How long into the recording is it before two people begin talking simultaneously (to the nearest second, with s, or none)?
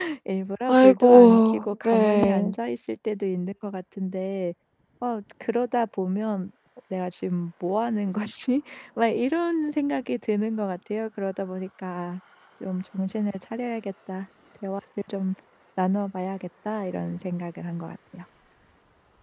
1 s